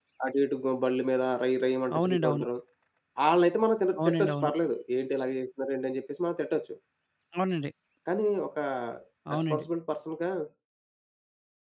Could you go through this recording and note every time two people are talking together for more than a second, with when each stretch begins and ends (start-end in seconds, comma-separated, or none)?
none